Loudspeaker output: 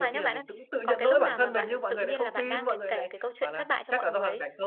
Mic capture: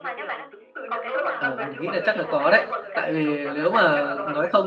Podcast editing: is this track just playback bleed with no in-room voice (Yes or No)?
No